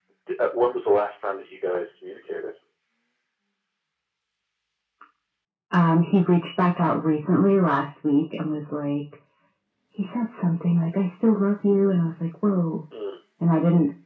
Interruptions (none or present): none